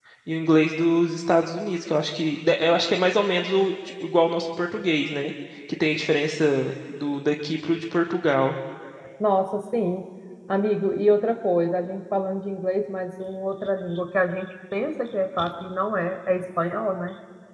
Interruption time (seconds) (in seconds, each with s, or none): none